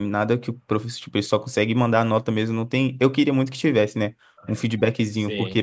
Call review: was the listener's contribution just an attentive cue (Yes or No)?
Yes